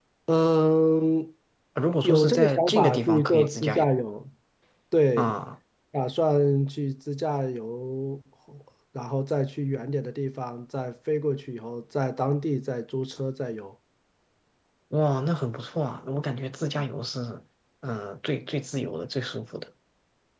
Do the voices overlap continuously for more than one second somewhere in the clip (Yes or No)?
Yes